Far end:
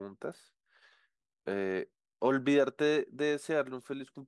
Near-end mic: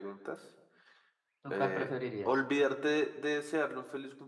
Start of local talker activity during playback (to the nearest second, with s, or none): 1 s